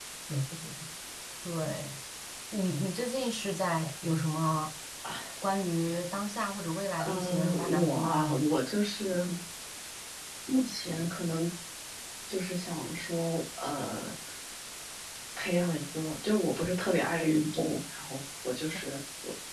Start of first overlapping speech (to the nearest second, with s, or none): 7 s